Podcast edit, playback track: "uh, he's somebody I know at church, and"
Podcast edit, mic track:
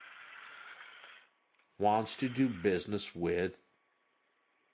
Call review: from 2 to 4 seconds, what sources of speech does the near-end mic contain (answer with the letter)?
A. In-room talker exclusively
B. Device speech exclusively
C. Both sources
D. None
A